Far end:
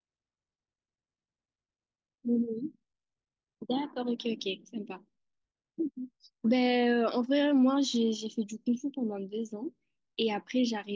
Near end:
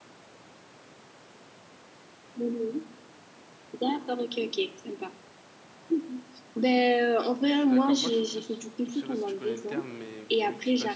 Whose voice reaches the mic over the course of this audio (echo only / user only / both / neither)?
both